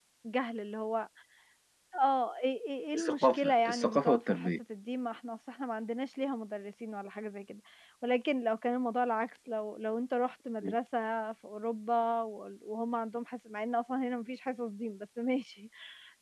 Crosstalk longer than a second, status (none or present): present